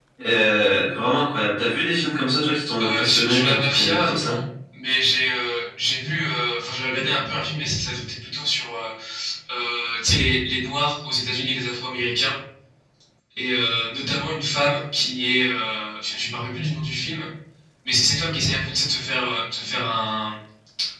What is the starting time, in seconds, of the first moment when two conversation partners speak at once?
2.8 s

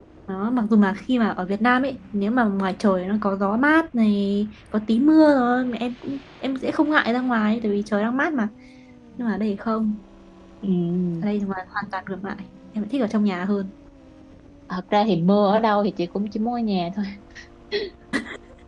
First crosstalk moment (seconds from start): none

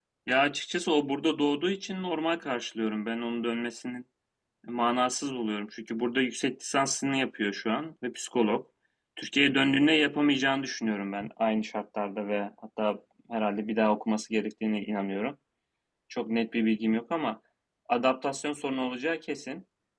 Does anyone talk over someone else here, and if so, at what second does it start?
none

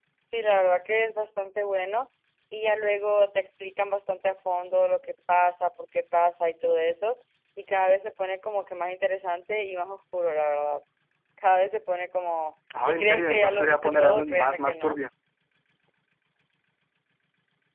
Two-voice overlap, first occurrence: 12.7 s

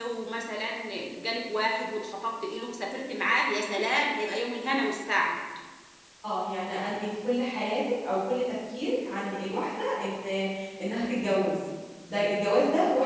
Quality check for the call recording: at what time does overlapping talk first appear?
none

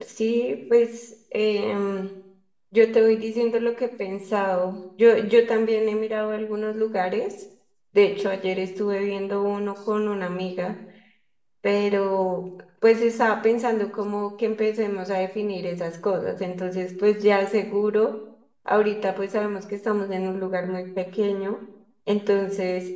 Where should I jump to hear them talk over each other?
none

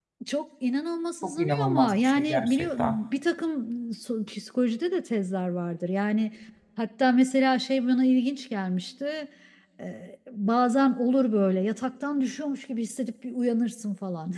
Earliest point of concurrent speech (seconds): 1.2 s

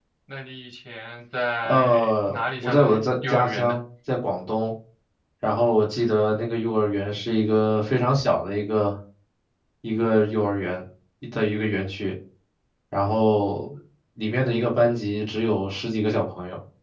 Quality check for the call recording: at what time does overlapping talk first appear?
1.6 s

